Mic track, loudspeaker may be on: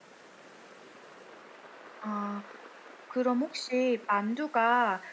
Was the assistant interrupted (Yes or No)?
Yes